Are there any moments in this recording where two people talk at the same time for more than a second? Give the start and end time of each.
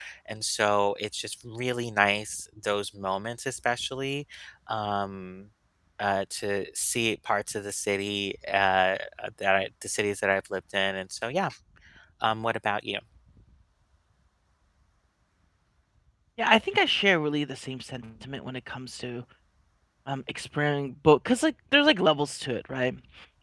none

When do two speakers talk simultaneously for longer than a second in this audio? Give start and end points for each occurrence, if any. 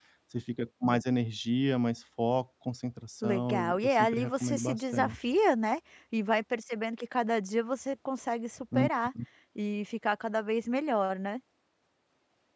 3.2-5.2

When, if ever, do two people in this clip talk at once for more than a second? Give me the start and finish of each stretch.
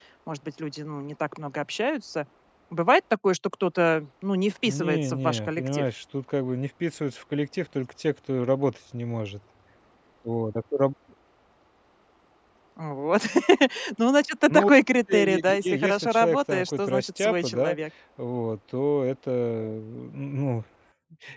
4.6-5.9, 15.1-17.8

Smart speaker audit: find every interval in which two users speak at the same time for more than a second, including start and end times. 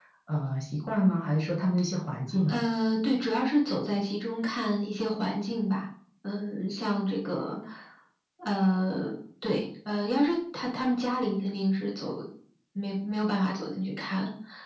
none

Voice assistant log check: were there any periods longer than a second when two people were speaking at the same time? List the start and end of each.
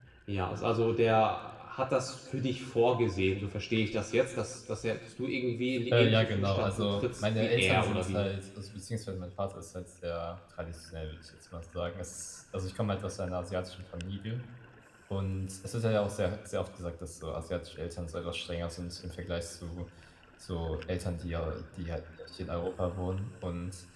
5.9-8.3

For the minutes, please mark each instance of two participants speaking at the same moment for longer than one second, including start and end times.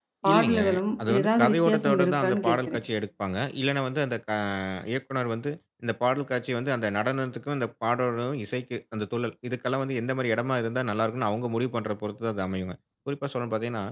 1.1-2.8

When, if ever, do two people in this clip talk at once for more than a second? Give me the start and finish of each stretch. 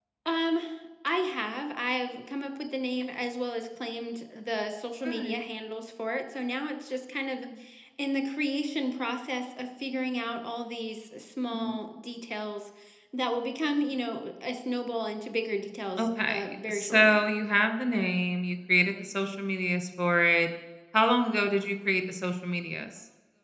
16.0-17.2

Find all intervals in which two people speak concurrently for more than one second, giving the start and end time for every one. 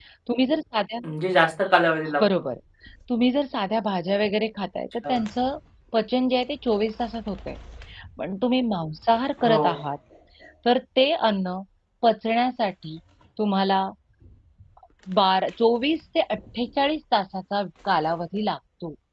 none

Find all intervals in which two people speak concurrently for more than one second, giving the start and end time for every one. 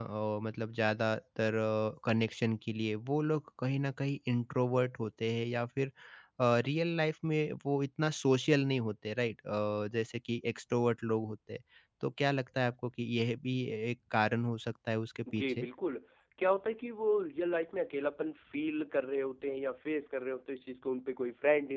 none

